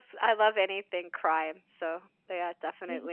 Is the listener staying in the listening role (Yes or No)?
No